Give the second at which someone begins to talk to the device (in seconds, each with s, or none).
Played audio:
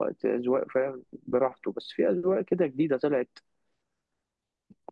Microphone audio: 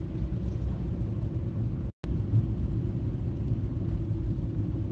none